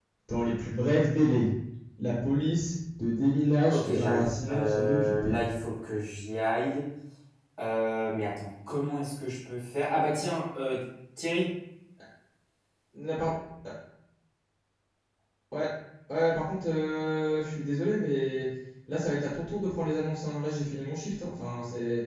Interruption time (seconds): 3.7 s

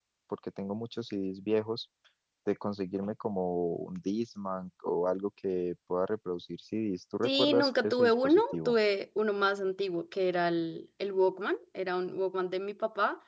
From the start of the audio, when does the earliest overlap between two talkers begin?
7.2 s

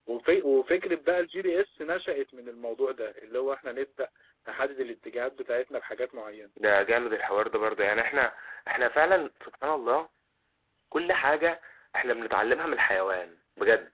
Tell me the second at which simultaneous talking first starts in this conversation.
none

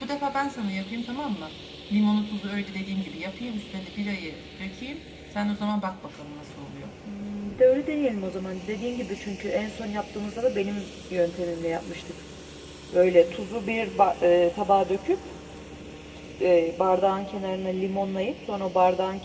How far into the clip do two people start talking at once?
none

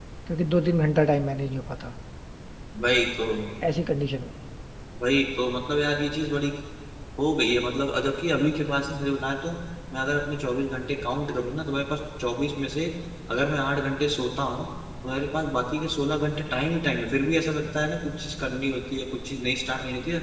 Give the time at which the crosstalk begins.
none

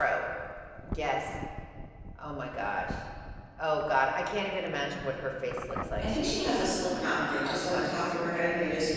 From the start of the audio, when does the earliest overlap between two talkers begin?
6.0 s

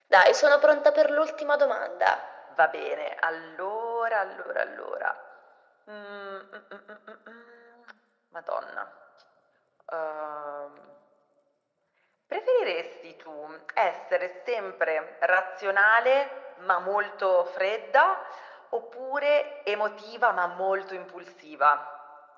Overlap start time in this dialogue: none

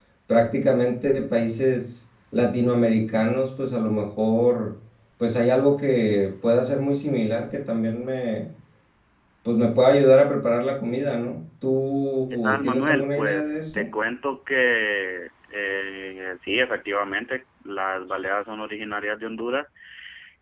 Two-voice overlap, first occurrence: 12.3 s

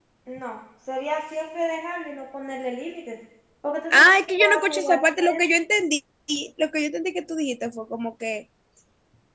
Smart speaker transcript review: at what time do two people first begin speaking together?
3.9 s

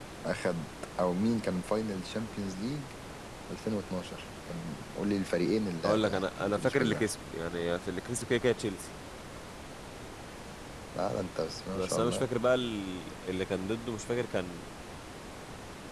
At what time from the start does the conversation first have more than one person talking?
5.8 s

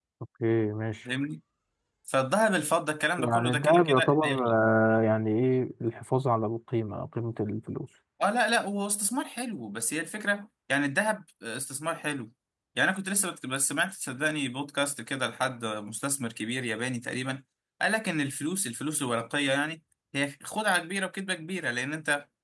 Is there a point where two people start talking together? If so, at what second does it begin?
3.2 s

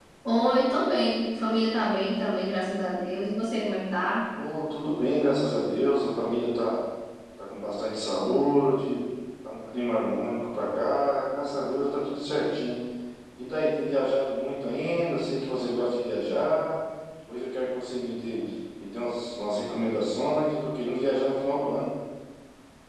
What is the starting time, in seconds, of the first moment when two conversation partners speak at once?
none

